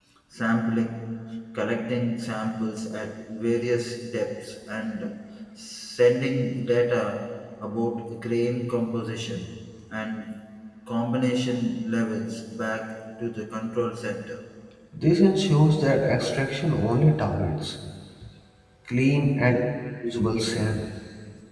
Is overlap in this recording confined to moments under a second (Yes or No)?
Yes